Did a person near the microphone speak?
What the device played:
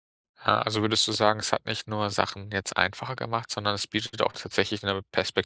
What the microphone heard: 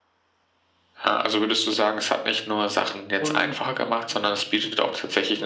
Yes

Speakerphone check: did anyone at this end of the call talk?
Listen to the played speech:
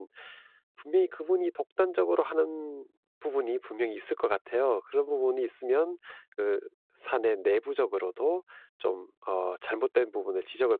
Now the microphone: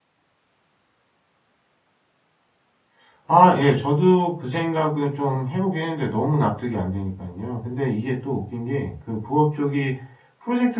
Yes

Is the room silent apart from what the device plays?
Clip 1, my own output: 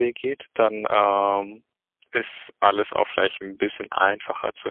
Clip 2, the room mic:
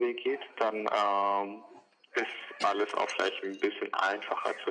Yes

